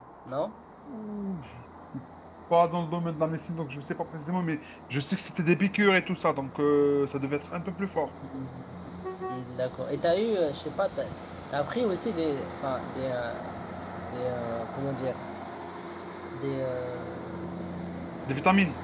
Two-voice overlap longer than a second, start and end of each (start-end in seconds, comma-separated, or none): none